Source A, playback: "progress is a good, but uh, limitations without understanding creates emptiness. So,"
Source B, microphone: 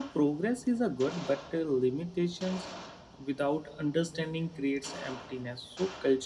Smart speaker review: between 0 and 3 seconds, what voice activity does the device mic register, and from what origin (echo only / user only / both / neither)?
echo only